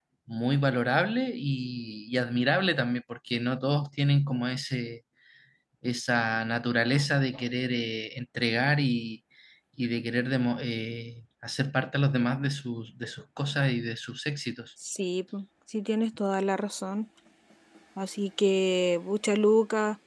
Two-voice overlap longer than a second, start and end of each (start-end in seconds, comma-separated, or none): none